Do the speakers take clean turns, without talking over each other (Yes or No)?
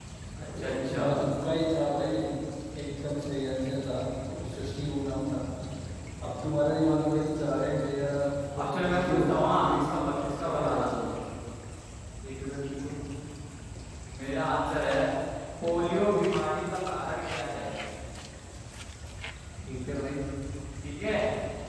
No